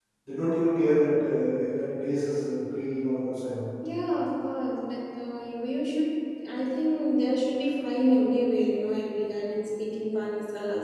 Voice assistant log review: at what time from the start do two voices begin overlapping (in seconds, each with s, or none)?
none